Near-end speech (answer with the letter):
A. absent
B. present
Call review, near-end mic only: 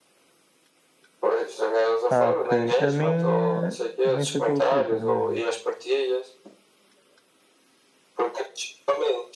B